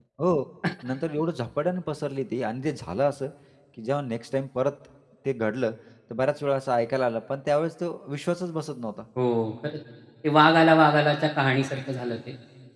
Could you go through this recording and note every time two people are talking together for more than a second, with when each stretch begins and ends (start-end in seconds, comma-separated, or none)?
none